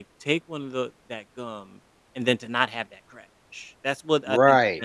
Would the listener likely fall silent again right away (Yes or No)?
No